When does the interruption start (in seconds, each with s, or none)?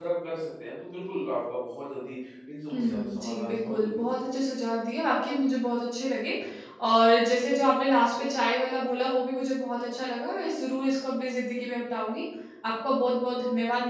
2.7 s